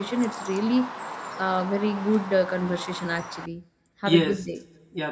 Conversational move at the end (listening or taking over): taking over